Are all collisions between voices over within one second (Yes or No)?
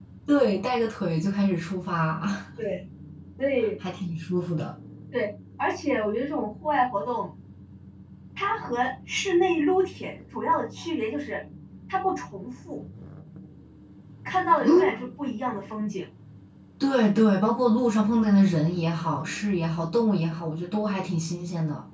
Yes